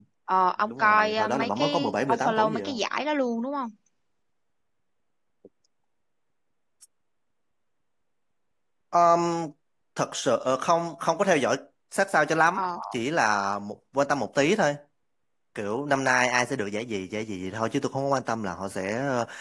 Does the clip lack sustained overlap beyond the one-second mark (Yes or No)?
No